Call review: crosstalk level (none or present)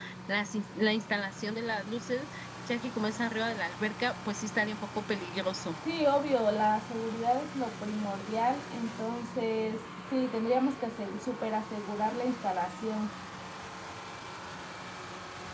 none